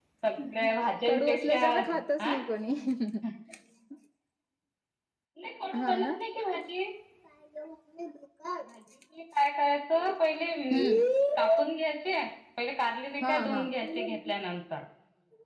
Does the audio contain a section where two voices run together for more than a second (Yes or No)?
Yes